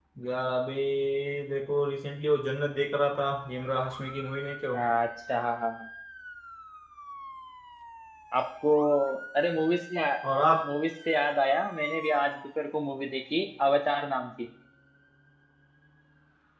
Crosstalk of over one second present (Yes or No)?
No